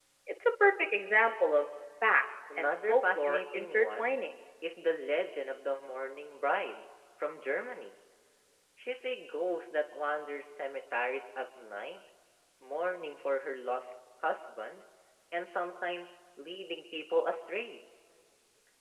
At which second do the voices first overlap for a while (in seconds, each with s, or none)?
2.5 s